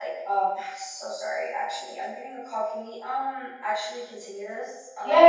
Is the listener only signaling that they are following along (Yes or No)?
No